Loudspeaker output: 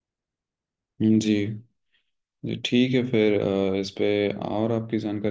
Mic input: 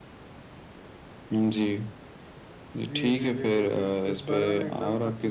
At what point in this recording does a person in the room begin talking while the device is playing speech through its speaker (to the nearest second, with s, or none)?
3 s